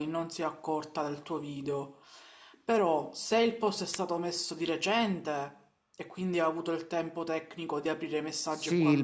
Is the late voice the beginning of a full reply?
Yes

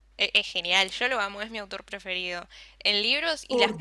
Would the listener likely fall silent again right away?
Yes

